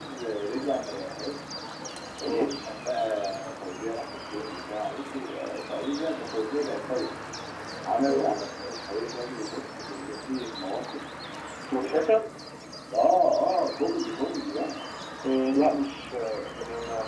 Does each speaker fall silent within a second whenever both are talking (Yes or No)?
Yes